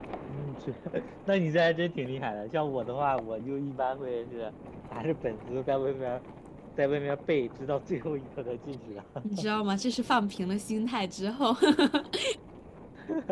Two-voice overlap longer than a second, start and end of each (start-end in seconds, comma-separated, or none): none